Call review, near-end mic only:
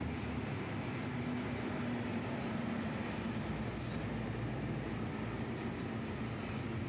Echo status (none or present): none